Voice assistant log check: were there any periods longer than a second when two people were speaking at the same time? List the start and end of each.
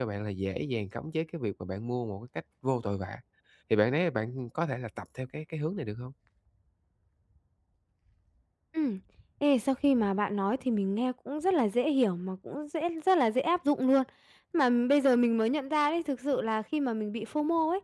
none

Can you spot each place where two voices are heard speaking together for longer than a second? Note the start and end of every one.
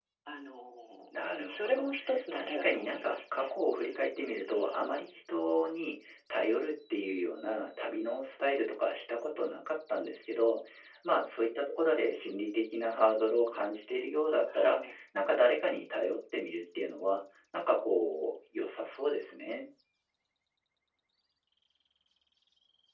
1.2-3.5

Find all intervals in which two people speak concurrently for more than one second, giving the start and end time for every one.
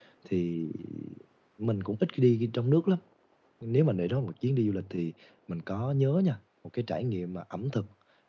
none

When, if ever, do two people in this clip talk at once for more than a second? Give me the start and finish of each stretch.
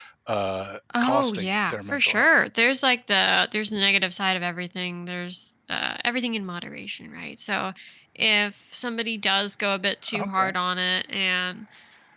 1.0-2.3

